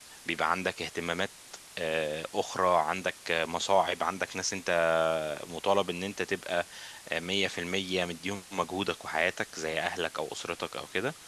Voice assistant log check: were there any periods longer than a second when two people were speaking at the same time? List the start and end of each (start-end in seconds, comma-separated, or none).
none